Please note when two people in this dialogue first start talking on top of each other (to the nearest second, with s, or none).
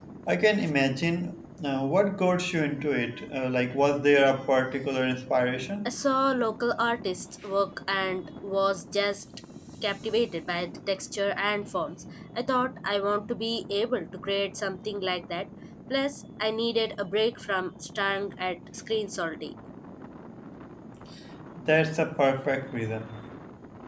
none